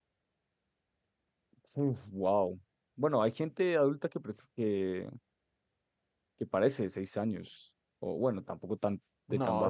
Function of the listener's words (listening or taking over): taking over